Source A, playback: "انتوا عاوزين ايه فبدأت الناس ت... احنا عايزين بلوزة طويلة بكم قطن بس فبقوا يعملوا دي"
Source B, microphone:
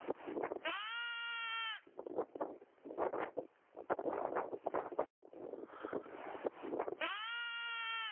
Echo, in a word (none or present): none